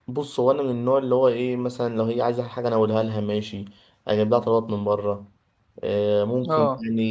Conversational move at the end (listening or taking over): listening